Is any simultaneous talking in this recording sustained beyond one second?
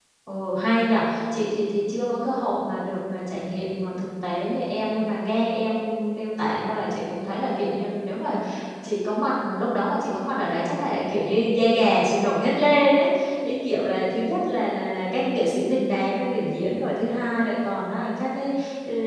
No

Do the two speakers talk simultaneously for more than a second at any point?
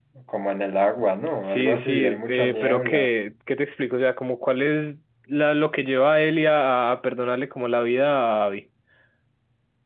Yes, from 1.4 s

